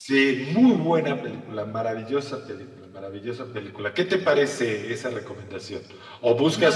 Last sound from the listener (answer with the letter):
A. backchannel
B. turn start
A